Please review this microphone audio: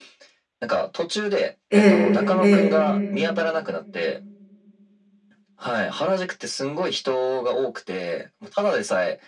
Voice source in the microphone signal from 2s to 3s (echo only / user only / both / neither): both